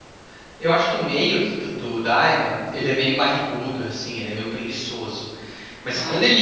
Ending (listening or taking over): listening